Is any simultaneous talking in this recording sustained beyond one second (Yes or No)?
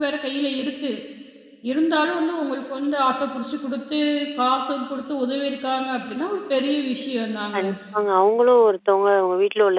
No